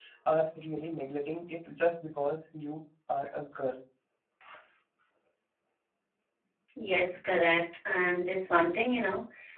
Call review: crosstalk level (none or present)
none